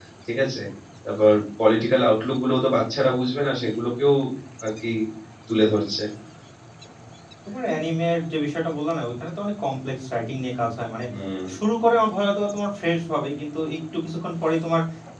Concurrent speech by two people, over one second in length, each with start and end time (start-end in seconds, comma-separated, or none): none